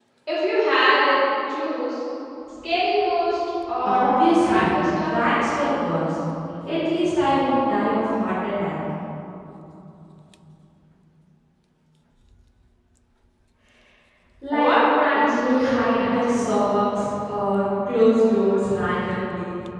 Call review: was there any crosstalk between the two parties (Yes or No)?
Yes